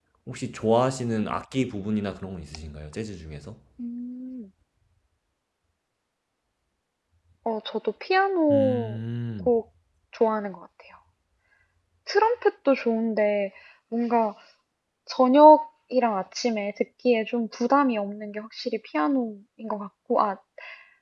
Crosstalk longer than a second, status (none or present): none